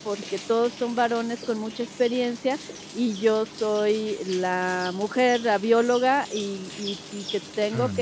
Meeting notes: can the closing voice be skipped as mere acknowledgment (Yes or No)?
Yes